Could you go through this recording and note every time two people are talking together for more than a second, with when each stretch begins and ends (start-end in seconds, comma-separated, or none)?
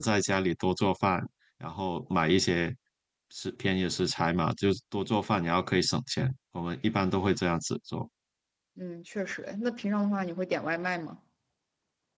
none